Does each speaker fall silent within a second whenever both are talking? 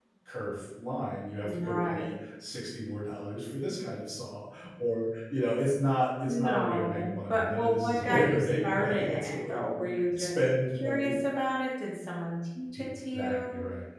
No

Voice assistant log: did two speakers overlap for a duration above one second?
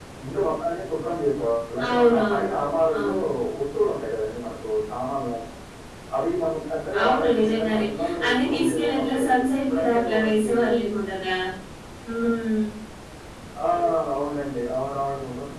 Yes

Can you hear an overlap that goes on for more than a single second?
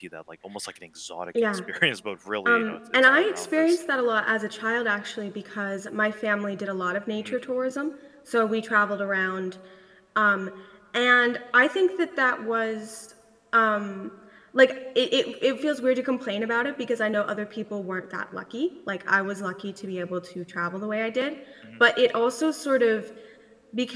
Yes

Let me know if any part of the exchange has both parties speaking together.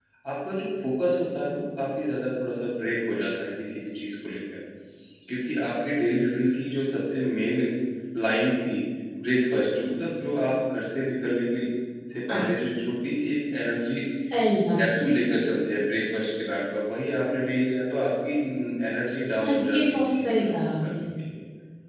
Yes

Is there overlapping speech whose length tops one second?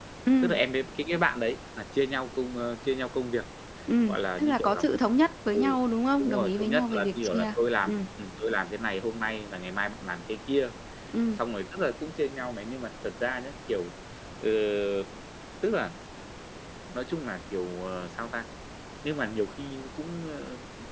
Yes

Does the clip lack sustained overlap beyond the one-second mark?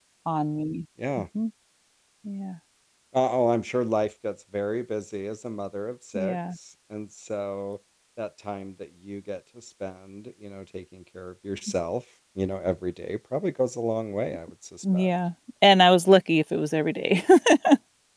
Yes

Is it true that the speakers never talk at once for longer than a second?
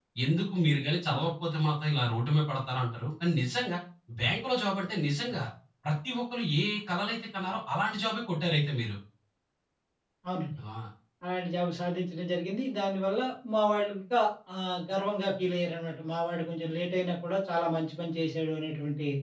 Yes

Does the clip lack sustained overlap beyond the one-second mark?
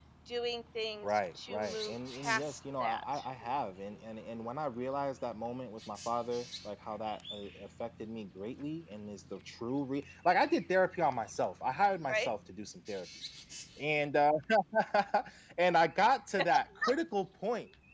No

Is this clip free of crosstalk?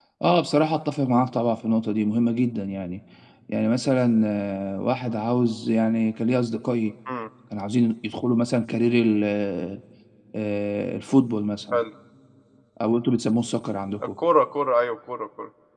Yes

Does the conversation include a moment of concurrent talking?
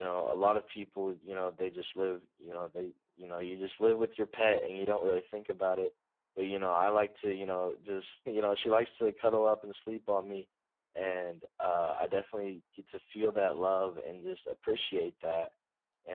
No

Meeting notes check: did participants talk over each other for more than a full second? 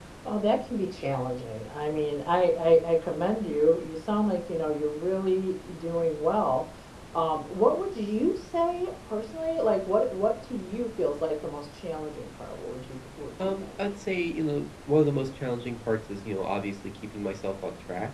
No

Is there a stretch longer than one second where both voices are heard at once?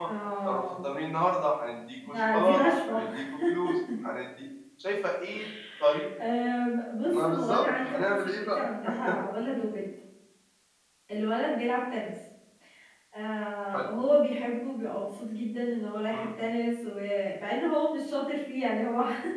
Yes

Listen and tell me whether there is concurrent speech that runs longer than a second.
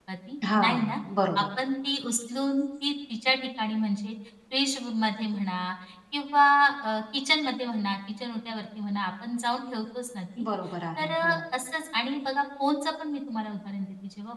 No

